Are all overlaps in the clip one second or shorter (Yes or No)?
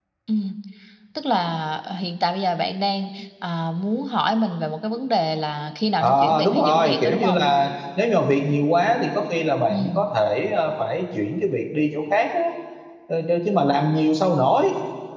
No